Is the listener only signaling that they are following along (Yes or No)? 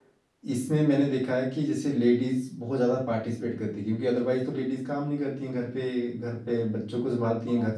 Yes